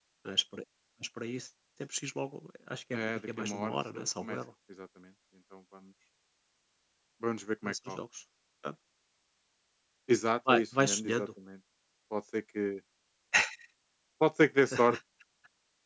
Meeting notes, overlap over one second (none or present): present